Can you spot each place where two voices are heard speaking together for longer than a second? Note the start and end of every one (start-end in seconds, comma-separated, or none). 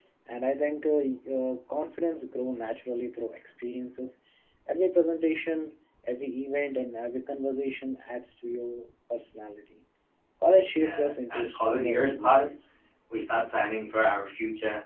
10.7-12.5